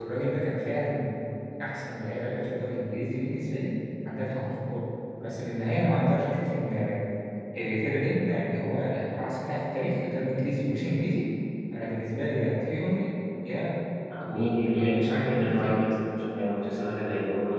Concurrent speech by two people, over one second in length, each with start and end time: 14.3-15.8

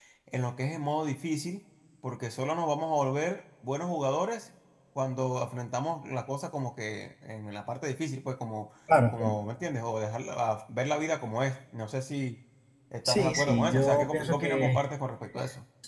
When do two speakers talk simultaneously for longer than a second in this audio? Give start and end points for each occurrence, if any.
13.1-14.8

